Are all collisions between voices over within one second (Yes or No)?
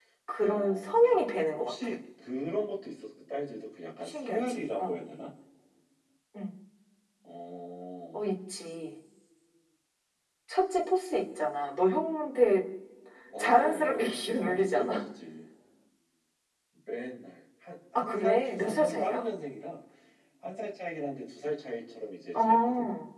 No